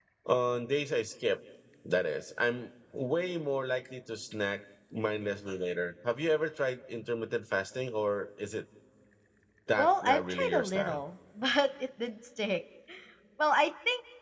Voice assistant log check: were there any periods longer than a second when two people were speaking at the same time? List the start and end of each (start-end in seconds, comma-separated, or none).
9.8-11.0